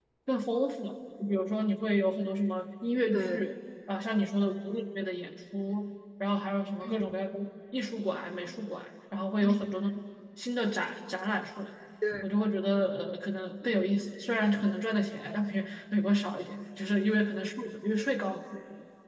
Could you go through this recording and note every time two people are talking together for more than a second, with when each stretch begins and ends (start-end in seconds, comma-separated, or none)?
none